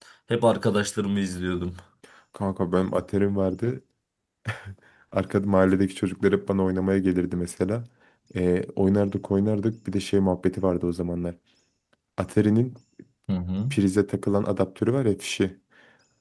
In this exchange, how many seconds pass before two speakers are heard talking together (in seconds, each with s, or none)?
none